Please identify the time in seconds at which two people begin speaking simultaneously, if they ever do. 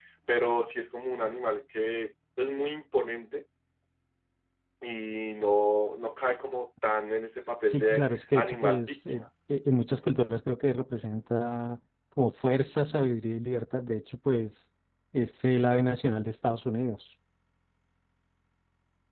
7.7 s

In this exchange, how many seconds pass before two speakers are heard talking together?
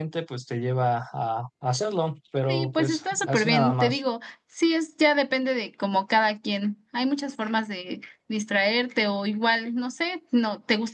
2.5 s

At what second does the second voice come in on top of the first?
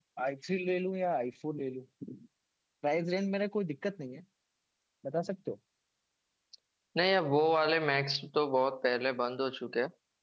none

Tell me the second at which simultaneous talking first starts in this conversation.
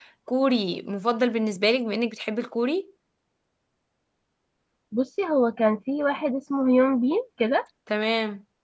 none

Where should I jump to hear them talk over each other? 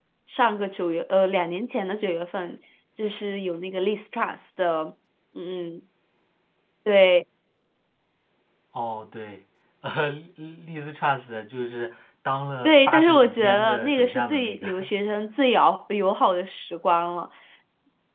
12.6 s

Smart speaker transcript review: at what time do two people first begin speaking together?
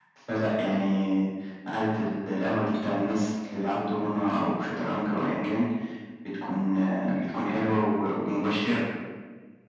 none

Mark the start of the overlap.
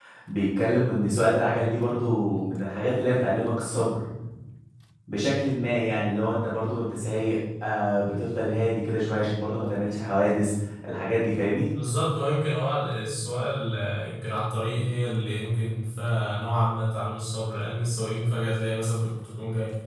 none

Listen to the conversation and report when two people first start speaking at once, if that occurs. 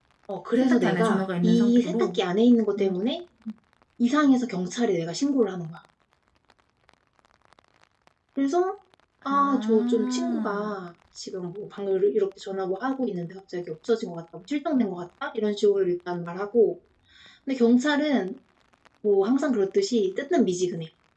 0.6 s

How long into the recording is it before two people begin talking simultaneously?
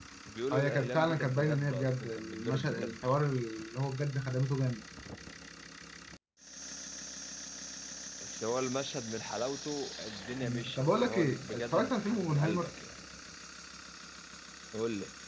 0.5 s

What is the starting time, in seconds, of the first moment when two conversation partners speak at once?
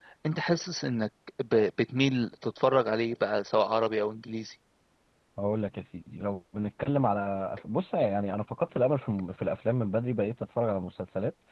none

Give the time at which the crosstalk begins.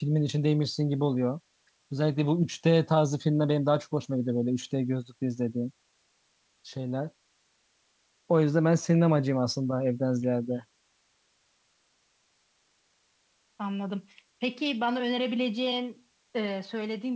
none

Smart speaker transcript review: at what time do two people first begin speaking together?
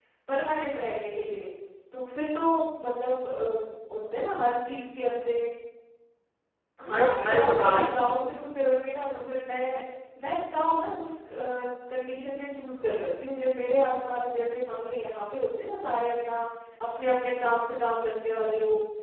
6.9 s

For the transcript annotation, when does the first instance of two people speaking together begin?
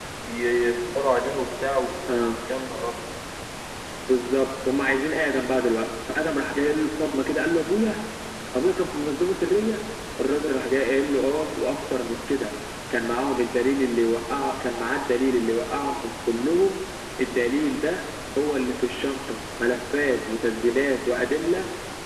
none

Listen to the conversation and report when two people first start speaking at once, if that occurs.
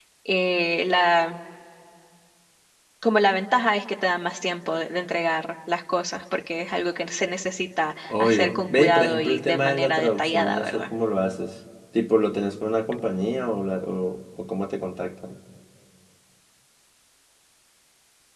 8.1 s

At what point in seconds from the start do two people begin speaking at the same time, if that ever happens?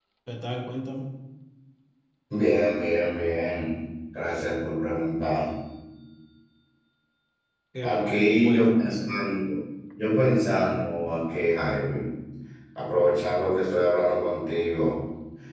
7.8 s

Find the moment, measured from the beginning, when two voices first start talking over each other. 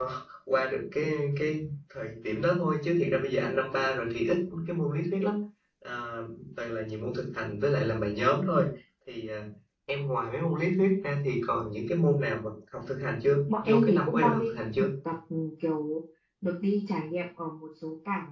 13.5 s

